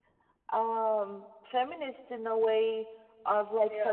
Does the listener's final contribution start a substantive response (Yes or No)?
No